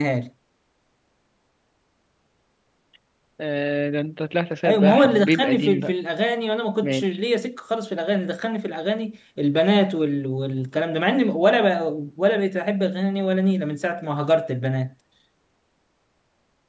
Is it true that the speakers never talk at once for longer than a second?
No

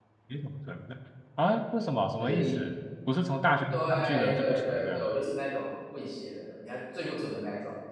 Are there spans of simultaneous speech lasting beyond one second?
Yes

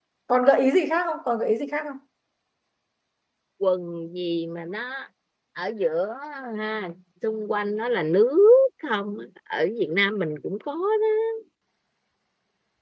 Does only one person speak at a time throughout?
Yes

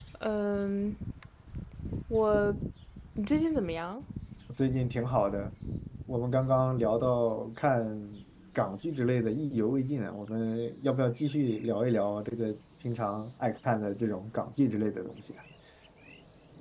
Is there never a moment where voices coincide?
Yes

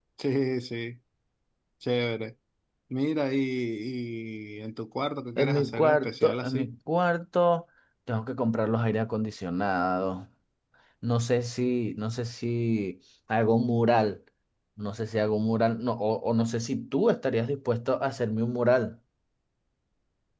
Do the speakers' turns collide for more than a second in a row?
Yes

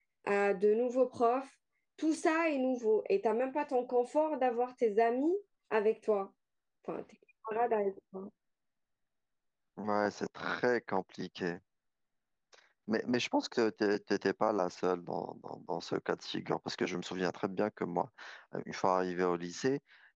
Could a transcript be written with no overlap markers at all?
Yes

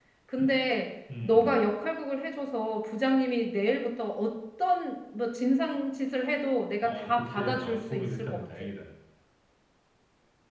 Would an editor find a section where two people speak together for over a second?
Yes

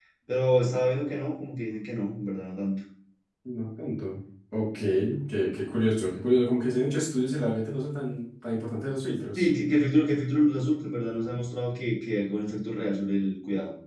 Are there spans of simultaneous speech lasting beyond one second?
No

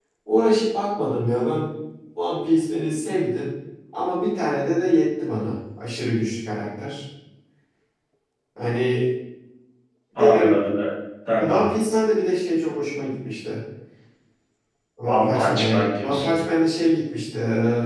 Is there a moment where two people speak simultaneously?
Yes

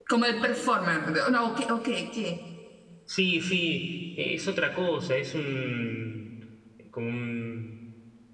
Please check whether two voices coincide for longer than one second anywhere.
No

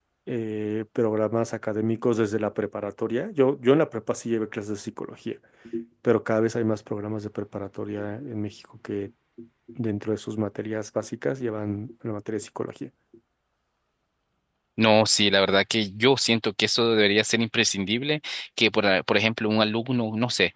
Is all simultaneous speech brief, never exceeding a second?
Yes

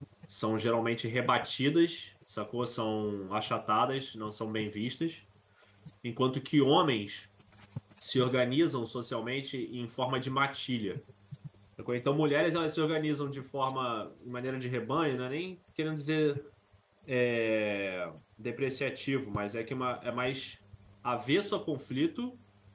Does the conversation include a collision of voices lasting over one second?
No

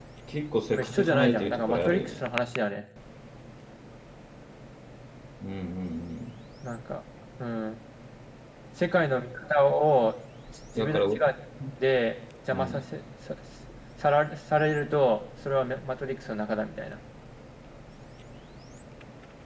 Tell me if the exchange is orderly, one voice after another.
No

